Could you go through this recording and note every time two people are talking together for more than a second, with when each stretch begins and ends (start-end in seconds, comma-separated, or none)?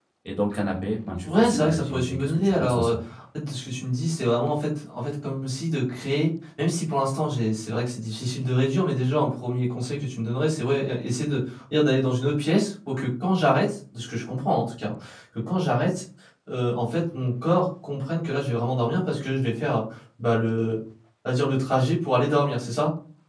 1.2-3.0